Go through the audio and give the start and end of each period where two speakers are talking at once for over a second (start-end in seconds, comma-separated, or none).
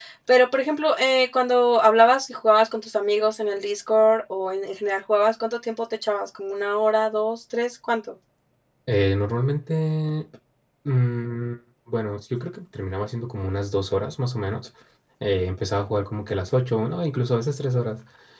none